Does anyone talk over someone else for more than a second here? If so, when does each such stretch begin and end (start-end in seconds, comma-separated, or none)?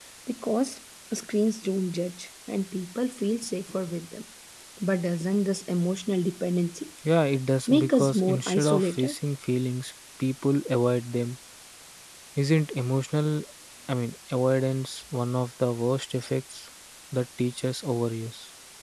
7.7-9.2